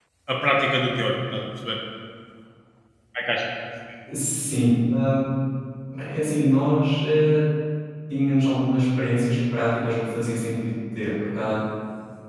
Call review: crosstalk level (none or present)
none